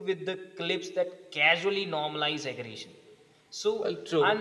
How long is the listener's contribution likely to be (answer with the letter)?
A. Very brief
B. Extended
A